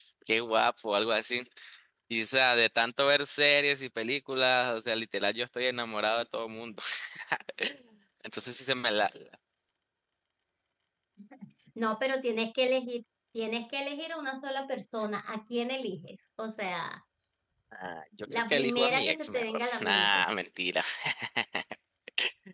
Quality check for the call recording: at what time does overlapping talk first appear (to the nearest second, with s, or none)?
18 s